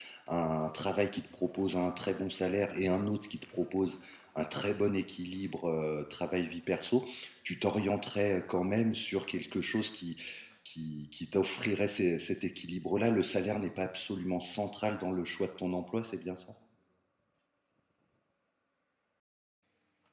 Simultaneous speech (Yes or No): No